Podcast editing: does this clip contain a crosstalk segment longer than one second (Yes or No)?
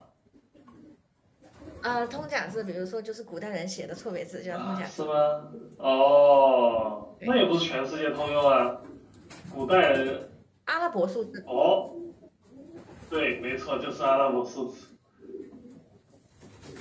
No